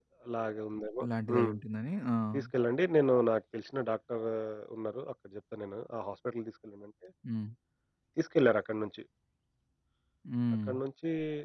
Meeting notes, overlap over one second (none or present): none